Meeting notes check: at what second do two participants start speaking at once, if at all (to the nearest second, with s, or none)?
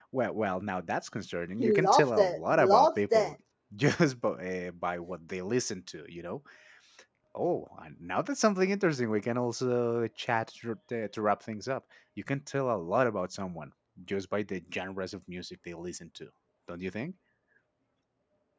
2 s